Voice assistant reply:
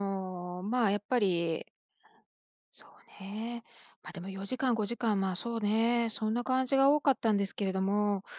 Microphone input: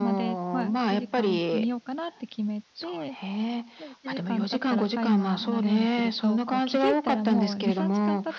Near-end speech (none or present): present